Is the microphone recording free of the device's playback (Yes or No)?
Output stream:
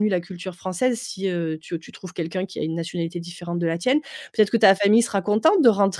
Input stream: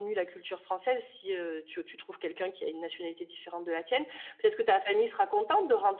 No